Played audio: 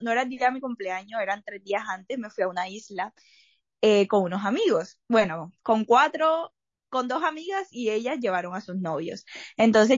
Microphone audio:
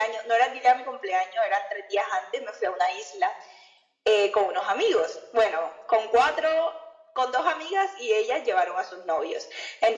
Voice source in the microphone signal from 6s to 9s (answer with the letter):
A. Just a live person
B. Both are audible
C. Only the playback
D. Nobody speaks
C